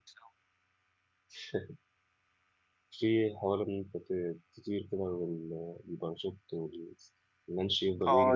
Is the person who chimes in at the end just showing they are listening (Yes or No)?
No